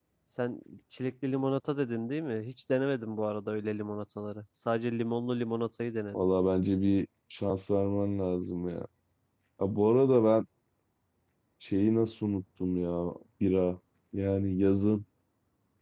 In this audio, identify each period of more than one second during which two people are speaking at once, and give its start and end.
none

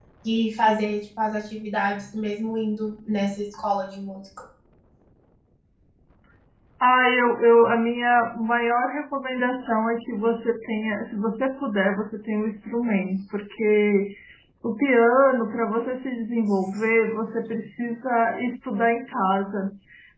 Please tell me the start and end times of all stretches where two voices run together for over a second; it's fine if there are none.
none

